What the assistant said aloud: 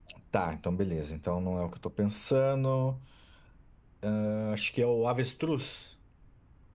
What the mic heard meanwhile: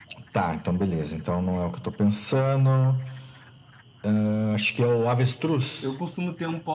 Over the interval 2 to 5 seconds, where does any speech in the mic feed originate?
echo only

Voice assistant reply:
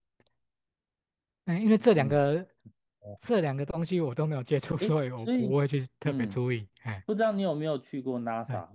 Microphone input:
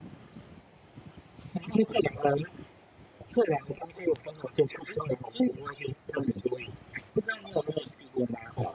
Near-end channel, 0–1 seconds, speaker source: neither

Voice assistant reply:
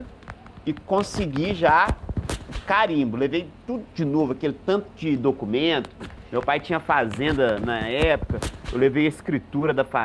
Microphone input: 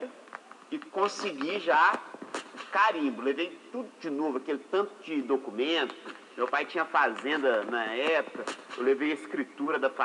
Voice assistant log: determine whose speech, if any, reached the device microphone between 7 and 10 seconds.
echo only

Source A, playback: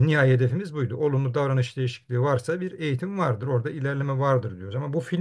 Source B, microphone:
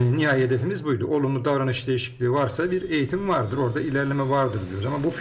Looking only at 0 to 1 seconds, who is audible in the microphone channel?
echo only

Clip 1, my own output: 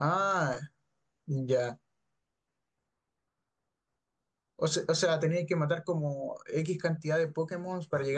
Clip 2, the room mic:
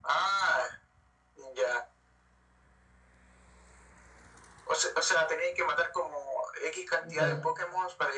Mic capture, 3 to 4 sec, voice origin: neither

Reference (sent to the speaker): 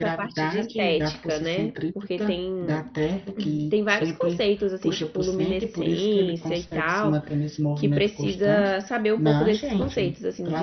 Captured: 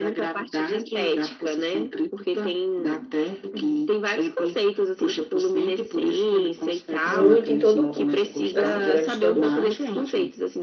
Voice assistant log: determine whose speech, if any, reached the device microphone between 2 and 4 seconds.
echo only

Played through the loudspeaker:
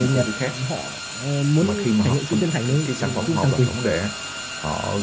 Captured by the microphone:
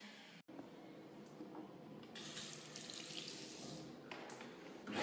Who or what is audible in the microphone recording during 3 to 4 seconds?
neither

